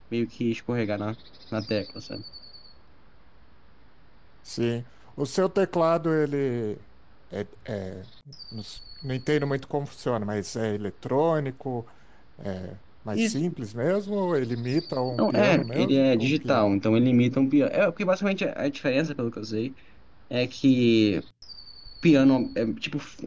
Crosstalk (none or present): present